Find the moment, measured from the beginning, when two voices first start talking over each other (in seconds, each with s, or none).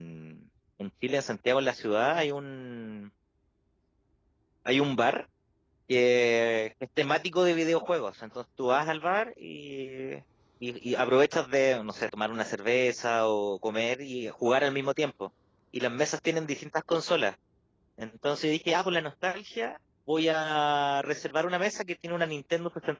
none